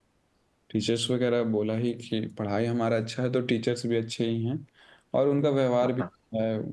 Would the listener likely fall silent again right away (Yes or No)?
Yes